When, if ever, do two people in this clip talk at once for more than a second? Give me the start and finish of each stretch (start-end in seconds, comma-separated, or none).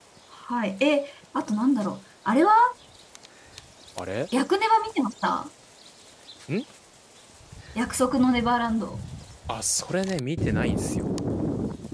none